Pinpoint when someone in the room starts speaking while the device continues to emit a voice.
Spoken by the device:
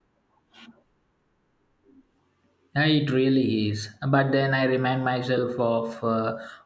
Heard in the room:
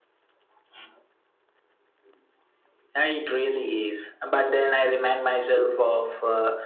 none

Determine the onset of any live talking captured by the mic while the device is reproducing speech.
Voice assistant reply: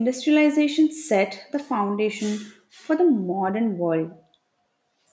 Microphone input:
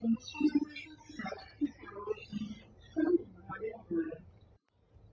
none

